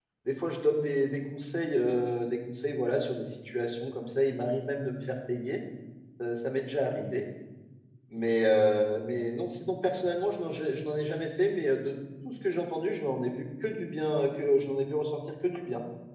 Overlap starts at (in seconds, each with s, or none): none